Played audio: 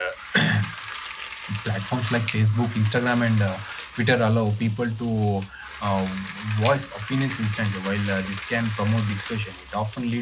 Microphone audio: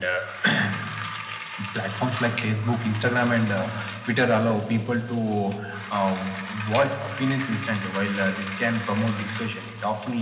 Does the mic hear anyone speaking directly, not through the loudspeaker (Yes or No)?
No